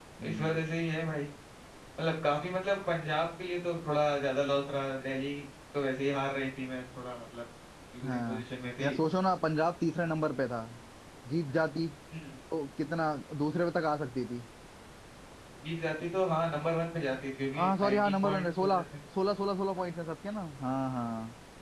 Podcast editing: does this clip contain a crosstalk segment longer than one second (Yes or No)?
Yes